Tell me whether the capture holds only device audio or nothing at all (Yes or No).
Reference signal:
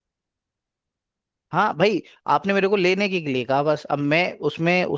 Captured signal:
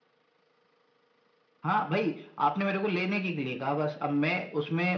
Yes